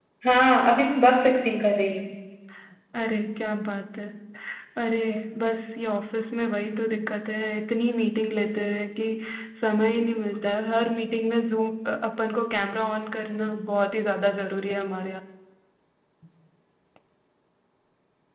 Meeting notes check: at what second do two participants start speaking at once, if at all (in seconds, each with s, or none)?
none